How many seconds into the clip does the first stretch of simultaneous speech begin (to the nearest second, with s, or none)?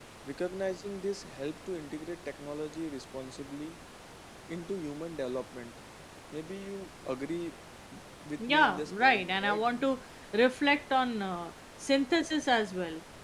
8 s